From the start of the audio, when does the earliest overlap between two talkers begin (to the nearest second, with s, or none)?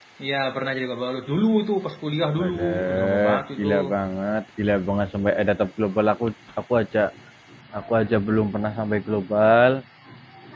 2 s